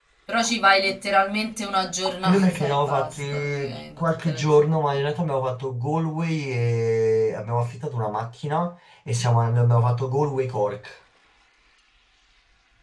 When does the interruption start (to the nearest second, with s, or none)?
2 s